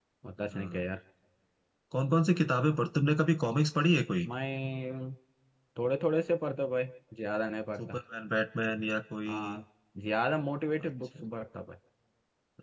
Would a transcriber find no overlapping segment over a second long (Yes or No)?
Yes